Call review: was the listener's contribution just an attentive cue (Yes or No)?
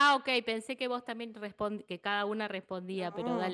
No